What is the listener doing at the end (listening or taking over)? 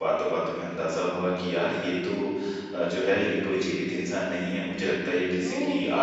listening